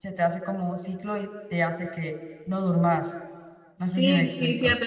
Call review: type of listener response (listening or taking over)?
taking over